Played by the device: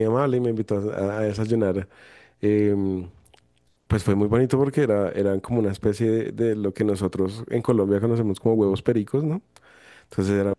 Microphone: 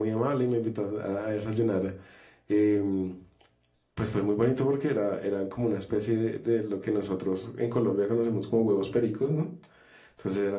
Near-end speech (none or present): none